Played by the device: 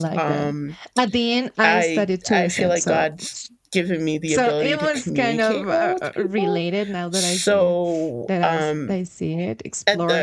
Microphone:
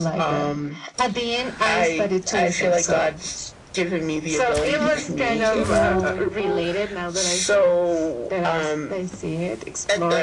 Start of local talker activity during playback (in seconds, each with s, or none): 4.7 s